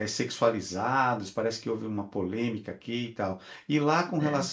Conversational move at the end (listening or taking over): listening